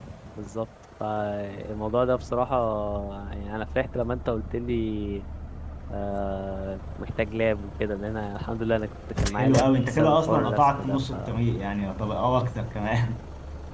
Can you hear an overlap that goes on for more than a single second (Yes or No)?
Yes